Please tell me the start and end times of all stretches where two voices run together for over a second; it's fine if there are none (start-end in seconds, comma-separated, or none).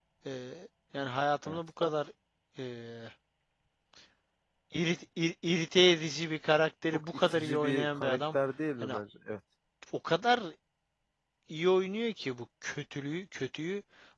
6.9-8.4